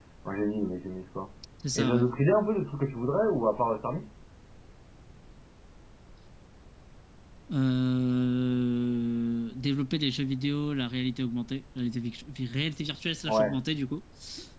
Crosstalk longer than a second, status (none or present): none